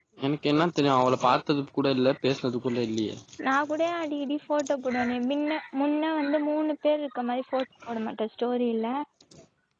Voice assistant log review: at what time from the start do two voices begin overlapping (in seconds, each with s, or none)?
none